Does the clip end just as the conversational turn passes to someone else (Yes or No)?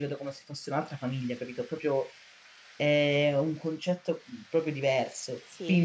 No